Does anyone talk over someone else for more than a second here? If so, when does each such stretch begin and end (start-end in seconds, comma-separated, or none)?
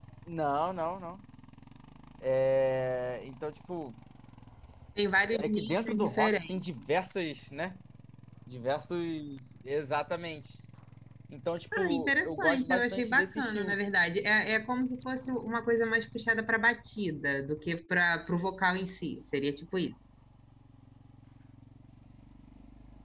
5.4-6.6, 11.8-13.8